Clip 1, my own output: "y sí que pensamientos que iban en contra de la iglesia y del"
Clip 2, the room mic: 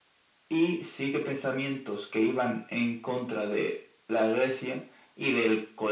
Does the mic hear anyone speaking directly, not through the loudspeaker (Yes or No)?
No